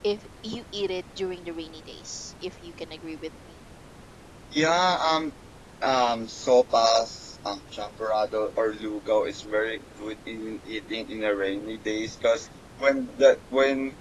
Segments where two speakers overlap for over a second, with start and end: none

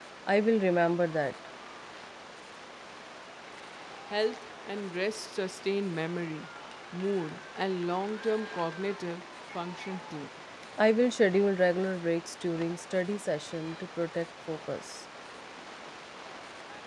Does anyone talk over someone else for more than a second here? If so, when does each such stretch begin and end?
none

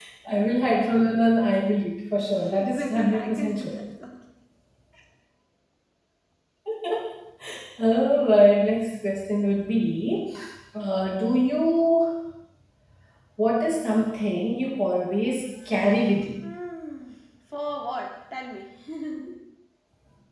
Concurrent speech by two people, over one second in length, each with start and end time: 2.5-3.8

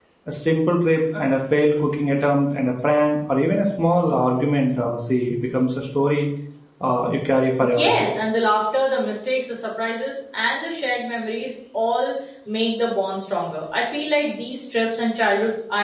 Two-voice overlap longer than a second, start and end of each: none

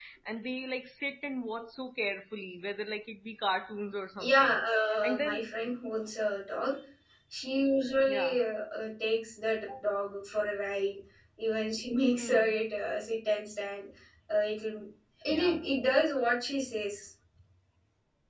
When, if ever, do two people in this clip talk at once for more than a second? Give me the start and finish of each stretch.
none

